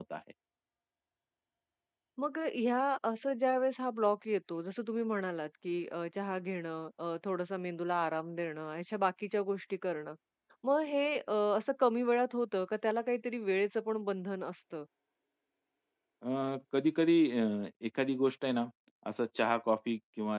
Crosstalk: none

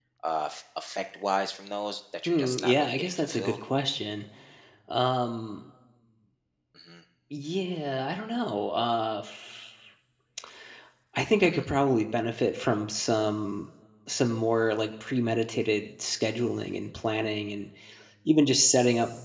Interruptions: present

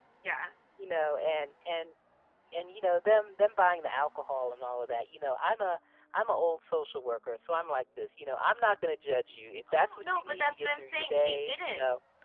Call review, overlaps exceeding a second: present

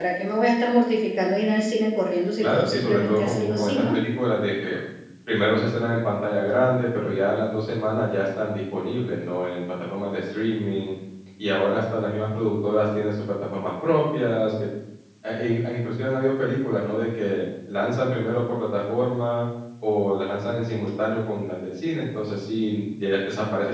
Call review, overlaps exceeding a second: present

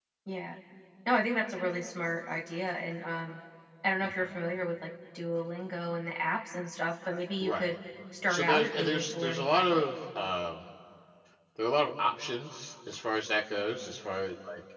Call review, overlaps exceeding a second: present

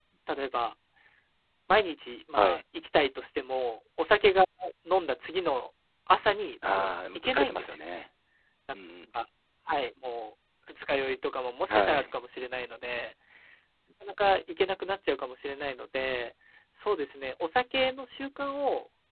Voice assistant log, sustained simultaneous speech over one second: present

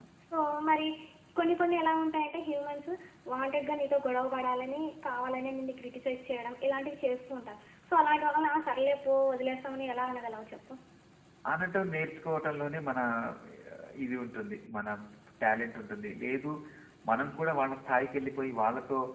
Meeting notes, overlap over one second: none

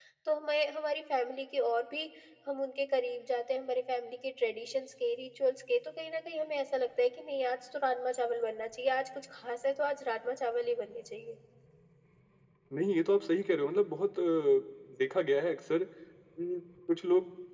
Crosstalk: none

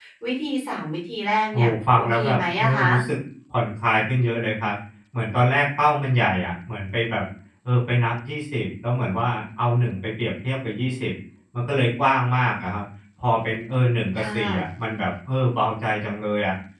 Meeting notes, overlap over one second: present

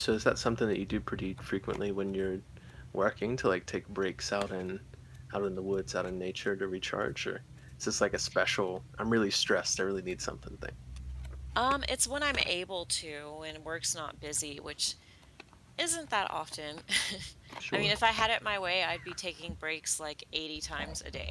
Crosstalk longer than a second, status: none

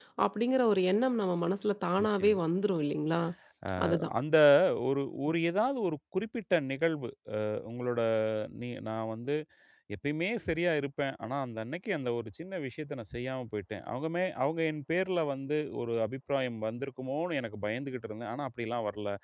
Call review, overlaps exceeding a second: none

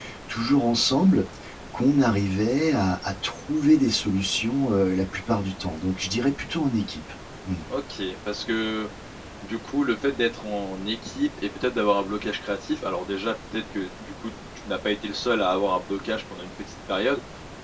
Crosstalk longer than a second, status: none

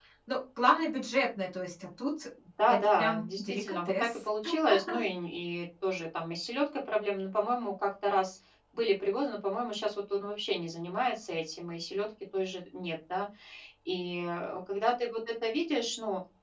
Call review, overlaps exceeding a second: present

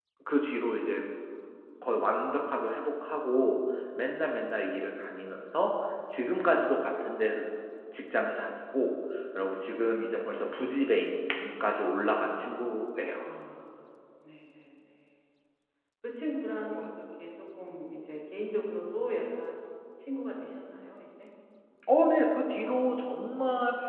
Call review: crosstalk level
none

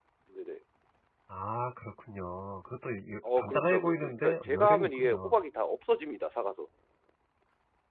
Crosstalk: present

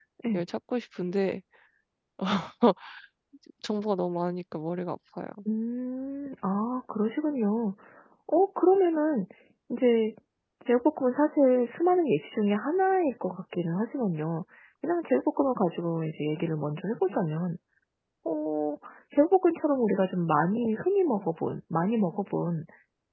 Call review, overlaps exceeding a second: none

